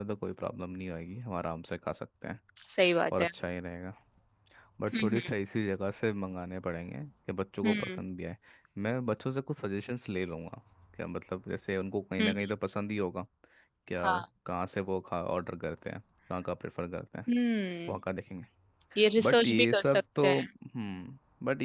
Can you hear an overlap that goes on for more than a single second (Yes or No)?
Yes